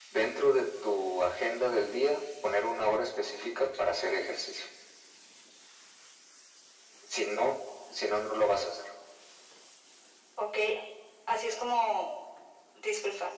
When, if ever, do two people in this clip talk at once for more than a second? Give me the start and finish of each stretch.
none

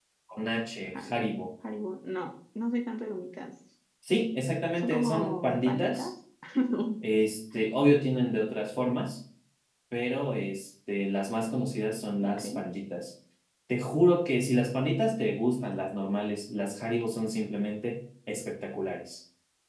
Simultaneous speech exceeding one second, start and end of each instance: 4.8-6.1

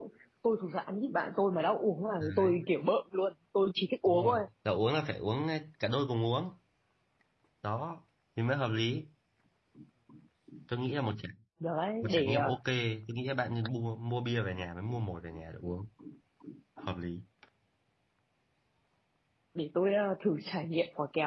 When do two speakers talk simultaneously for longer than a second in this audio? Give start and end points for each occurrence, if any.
none

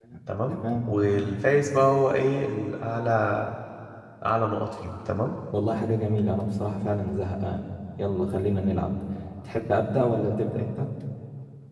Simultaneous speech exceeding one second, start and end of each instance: none

